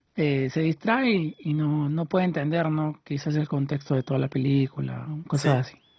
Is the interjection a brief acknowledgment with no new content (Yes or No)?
No